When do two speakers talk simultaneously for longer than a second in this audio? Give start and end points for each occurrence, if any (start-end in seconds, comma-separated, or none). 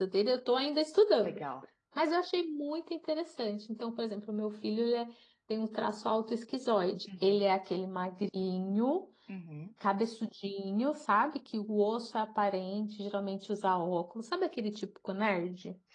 none